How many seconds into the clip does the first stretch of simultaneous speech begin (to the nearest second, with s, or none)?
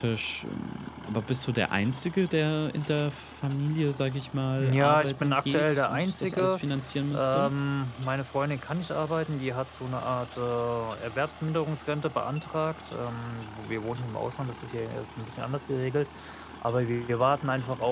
5 s